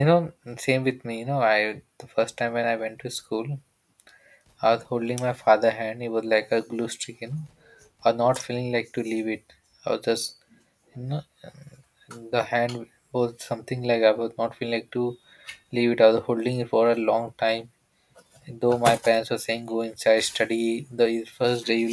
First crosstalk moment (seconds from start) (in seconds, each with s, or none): none